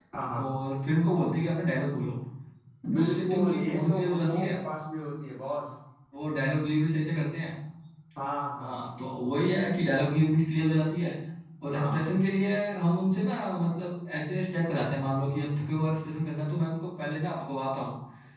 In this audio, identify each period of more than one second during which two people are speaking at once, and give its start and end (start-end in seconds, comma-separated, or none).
2.9-4.6